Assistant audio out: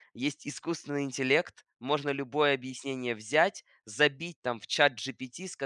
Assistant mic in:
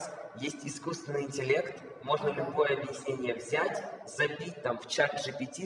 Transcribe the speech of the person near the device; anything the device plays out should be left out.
Ага.

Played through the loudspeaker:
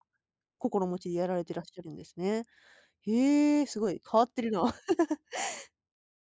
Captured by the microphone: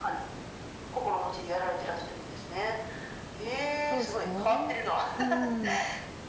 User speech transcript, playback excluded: そうですね。うんうん。

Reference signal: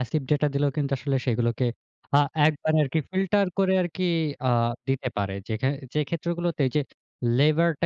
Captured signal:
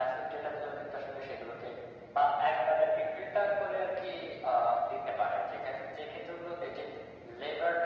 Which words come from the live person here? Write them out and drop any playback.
none

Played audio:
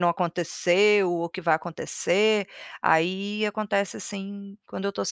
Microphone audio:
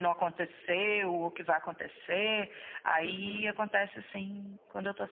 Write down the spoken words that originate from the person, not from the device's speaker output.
Uhum.

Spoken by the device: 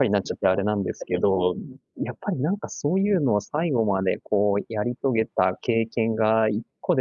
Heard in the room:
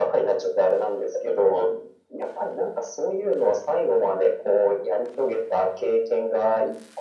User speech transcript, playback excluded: none

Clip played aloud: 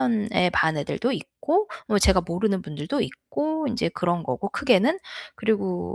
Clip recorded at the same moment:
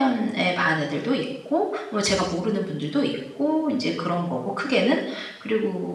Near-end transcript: none

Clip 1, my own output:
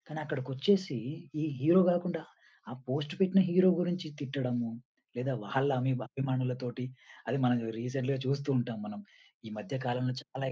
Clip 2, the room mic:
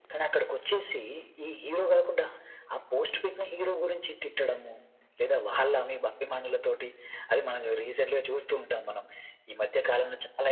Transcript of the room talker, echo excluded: none

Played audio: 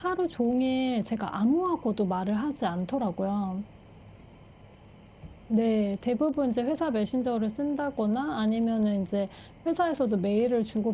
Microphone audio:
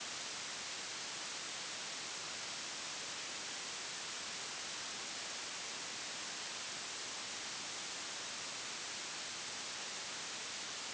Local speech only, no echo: none

